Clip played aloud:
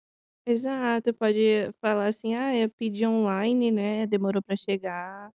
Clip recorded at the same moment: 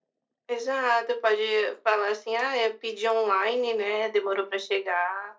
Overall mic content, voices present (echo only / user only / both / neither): echo only